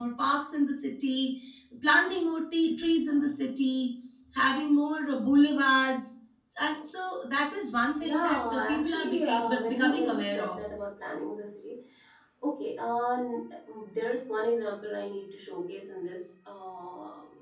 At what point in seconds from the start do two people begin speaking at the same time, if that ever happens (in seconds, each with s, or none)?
8.0 s